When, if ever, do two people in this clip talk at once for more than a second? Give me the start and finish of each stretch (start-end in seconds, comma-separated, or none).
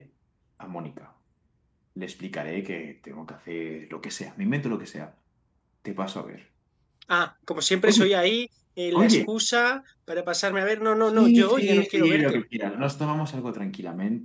11.1-12.4